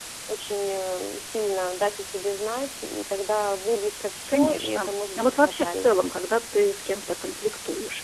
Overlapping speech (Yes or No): Yes